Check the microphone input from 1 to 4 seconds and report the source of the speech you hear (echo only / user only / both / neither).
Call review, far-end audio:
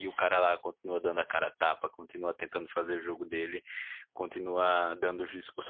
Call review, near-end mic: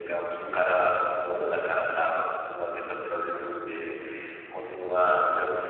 echo only